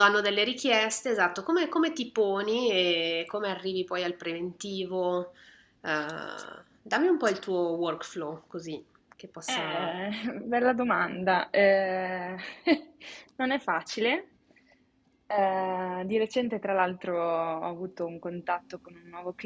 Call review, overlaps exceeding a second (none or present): none